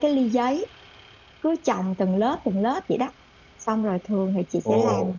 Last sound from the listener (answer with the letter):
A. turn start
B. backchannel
B